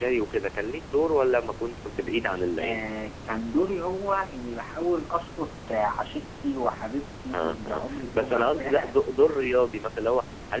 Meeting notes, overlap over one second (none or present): present